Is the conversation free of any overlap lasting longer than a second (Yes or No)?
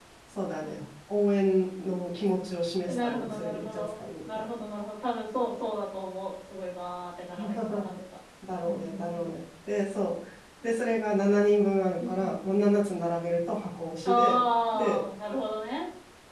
No